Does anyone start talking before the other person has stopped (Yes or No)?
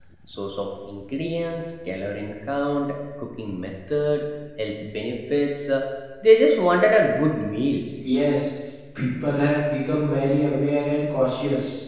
No